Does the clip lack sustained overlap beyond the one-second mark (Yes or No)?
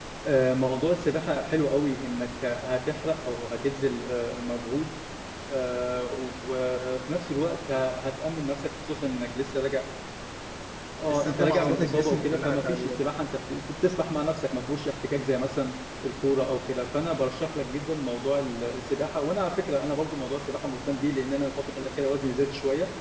No